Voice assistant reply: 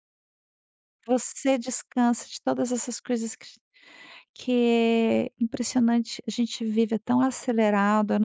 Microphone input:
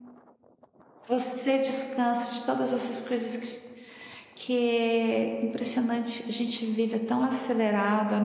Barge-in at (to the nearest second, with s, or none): none